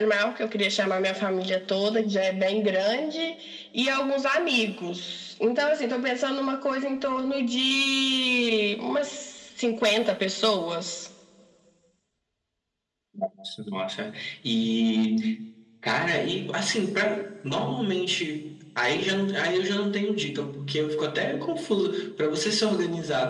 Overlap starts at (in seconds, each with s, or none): none